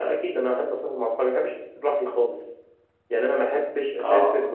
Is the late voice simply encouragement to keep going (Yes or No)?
Yes